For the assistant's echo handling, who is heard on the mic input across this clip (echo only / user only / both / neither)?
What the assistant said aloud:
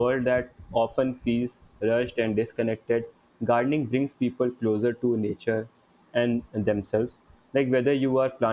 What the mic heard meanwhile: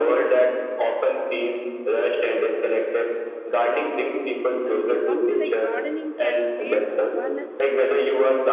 both